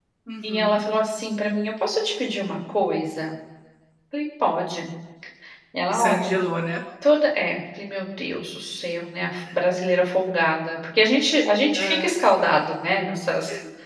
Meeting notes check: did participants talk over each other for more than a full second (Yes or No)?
No